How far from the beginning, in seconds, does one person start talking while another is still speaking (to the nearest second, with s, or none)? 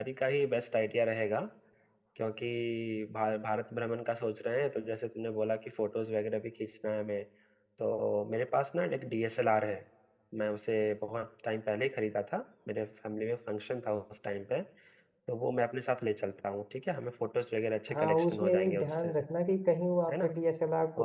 18 s